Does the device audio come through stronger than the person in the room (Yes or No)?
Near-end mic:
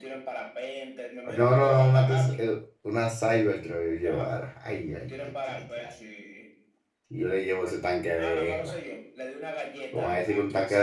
No